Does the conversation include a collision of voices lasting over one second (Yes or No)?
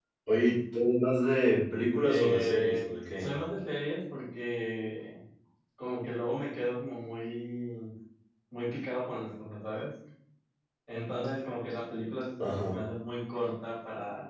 Yes